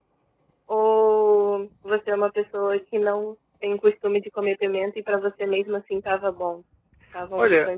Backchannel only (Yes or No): No